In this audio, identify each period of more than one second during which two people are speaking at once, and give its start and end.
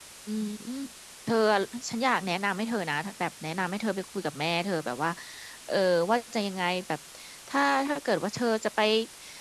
none

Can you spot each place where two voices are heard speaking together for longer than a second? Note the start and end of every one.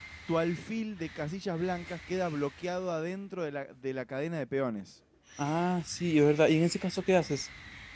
none

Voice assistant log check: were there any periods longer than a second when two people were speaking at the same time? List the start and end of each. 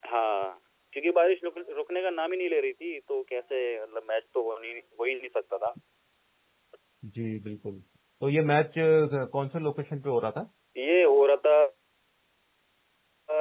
none

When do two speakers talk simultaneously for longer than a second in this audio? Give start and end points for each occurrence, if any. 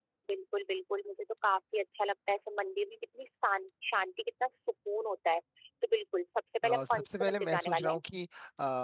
6.6-8.0

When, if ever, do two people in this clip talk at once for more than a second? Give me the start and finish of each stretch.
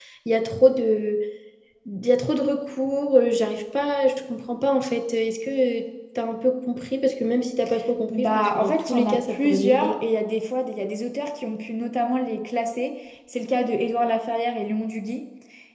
8.1-9.9

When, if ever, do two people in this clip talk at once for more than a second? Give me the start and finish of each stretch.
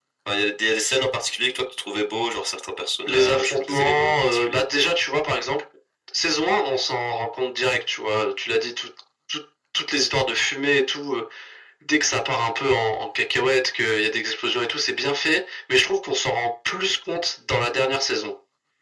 3.1-4.7

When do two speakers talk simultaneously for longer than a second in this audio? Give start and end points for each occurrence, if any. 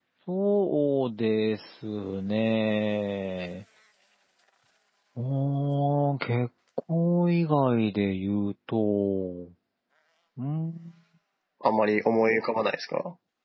none

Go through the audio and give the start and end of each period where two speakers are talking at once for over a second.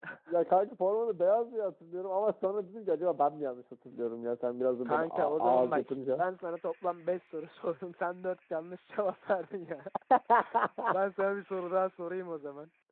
4.8-6.2

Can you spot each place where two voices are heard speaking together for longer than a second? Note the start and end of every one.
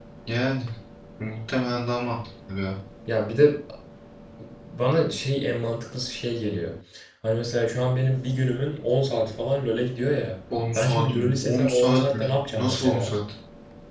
10.7-13.1

